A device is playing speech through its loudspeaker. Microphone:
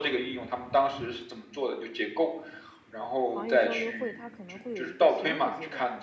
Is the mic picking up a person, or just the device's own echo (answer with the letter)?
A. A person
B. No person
A